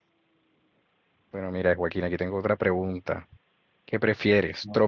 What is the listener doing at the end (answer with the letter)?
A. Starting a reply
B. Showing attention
B